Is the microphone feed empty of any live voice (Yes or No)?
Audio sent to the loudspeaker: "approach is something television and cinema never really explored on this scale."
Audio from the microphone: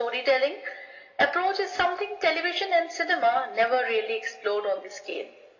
Yes